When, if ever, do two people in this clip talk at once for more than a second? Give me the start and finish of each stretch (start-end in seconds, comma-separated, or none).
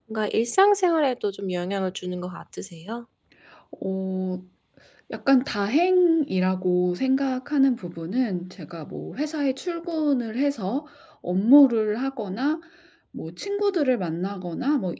none